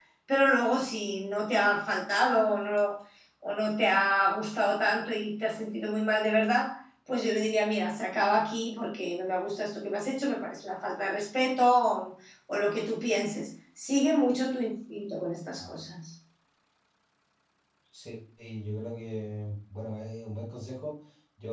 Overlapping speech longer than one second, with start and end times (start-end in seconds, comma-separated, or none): none